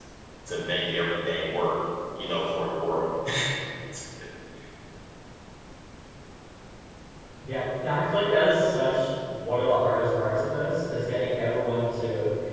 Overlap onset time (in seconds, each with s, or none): none